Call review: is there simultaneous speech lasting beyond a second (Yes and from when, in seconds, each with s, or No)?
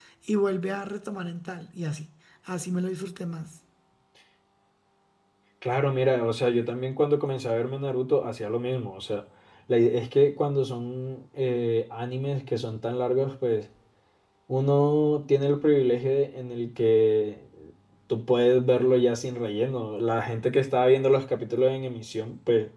No